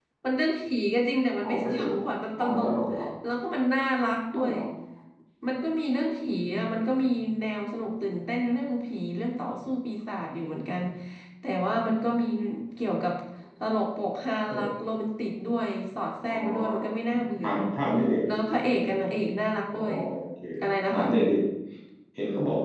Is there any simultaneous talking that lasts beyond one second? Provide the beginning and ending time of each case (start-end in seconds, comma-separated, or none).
1.4-2.8